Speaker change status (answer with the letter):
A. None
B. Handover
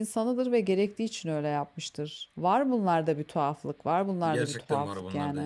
B